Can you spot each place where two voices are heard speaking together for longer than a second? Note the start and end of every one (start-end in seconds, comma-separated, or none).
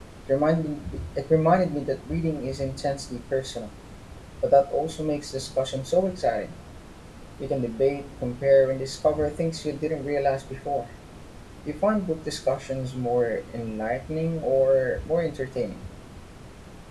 none